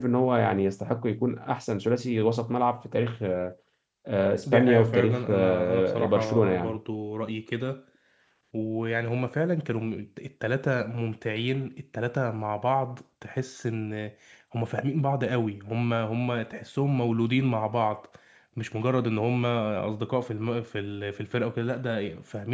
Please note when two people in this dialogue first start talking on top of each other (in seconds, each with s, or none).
4.5 s